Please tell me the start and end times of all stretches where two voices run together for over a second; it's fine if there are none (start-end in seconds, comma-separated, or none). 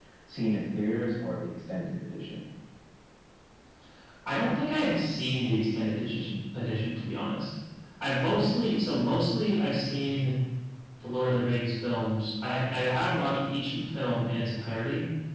none